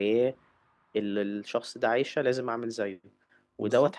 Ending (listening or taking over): listening